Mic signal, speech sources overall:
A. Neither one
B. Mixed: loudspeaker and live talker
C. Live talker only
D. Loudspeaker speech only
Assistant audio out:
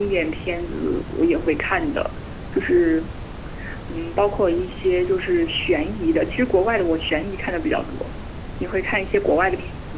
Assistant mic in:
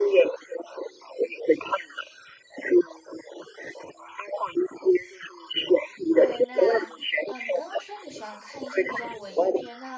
B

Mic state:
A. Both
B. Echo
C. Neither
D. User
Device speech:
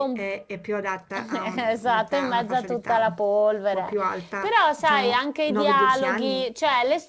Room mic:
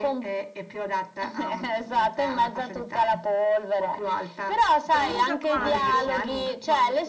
A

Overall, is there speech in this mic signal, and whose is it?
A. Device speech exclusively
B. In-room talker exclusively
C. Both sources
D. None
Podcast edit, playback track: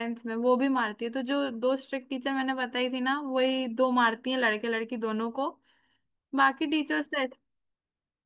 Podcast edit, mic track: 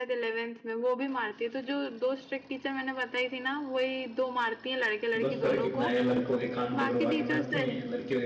C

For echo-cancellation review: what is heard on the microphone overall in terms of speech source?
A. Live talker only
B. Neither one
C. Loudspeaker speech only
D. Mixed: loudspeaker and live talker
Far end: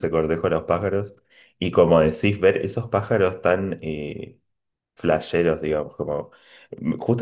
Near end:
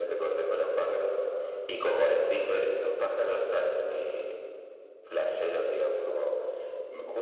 C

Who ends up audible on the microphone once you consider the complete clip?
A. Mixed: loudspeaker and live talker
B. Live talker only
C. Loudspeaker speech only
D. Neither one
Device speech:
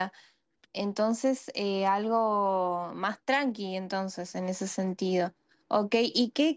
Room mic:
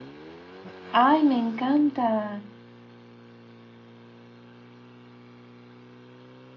B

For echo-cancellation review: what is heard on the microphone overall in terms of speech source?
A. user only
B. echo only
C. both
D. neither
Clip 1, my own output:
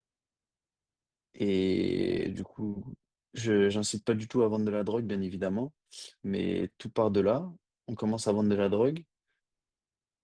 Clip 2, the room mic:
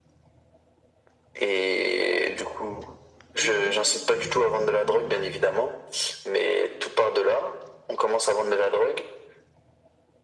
C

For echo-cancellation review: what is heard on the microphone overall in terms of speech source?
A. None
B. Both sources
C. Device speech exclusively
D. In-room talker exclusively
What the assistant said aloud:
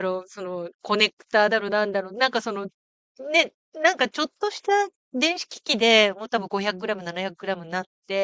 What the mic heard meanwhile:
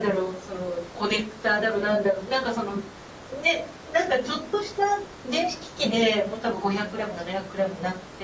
C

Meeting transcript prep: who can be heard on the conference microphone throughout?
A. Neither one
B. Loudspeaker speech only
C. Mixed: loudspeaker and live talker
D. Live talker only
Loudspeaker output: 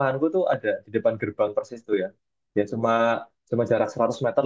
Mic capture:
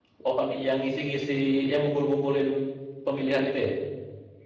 D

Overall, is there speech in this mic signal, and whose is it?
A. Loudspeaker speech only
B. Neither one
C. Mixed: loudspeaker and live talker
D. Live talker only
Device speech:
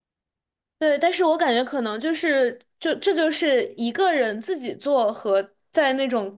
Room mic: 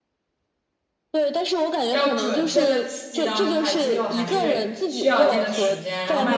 C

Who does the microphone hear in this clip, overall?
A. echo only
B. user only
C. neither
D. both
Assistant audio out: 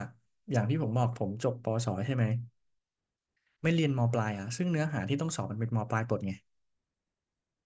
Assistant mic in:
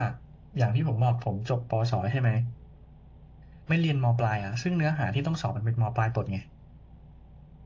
A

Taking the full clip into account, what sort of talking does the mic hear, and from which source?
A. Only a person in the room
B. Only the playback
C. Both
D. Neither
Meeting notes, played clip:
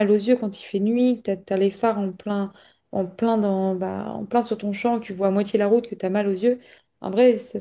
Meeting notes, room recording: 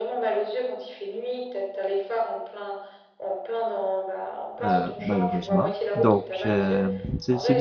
C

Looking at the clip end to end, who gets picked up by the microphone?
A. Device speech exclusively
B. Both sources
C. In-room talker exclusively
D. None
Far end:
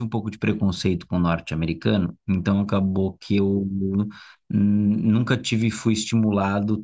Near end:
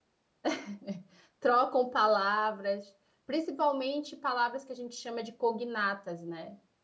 C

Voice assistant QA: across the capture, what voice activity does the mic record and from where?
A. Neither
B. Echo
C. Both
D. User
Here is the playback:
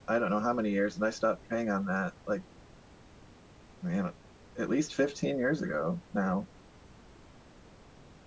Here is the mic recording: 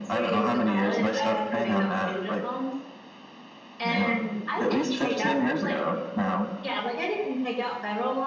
C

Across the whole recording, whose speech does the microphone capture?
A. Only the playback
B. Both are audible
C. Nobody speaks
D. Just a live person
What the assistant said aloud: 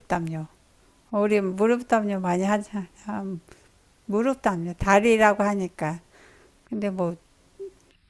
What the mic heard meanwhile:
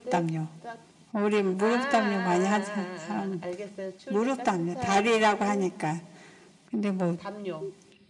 B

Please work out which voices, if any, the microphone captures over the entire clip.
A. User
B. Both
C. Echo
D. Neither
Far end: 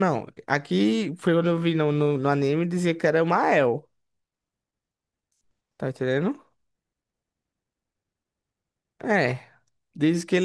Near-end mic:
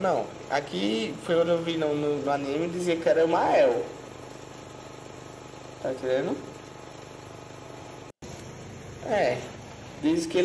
C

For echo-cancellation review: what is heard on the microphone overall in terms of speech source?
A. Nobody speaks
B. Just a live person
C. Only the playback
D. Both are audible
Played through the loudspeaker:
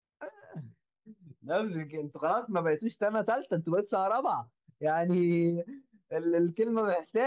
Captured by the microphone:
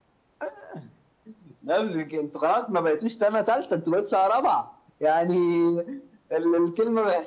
C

